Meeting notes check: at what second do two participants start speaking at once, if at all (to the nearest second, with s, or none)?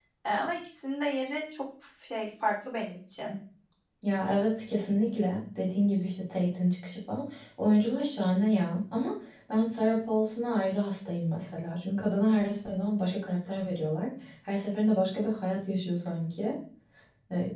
none